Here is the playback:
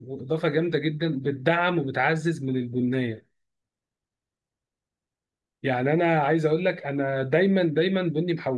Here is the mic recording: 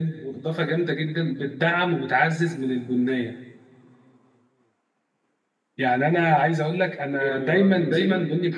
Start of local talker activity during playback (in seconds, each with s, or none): 7.2 s